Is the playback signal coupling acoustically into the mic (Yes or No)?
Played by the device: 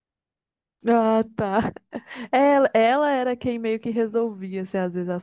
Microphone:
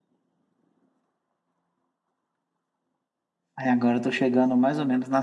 No